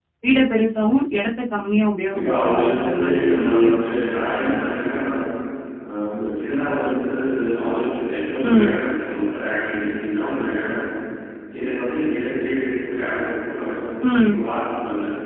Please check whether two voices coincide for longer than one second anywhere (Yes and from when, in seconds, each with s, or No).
Yes, from 2.1 s